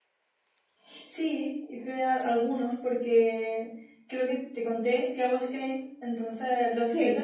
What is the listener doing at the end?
listening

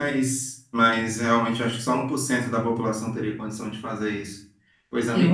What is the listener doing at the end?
listening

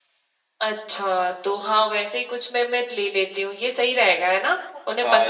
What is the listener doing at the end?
taking over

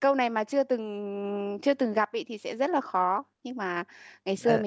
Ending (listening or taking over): listening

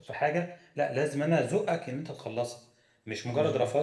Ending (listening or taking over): listening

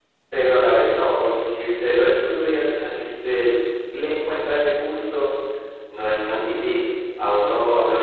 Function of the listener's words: listening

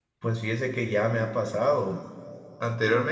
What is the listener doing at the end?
listening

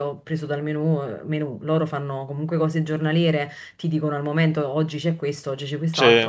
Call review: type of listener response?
listening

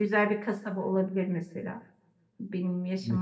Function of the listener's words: taking over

